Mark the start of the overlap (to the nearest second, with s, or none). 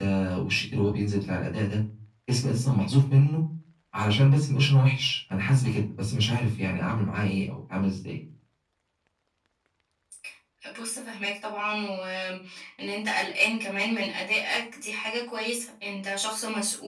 none